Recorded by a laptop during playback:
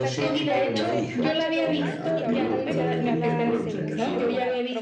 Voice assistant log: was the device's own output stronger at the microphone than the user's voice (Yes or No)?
Yes